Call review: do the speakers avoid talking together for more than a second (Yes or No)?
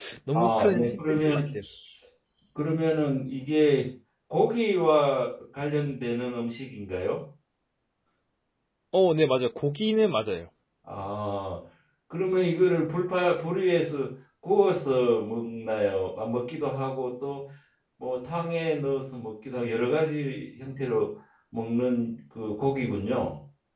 No